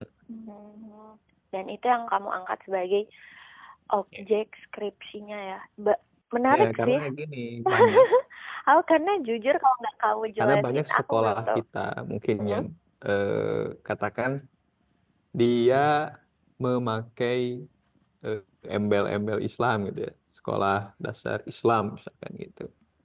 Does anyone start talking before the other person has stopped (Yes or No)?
Yes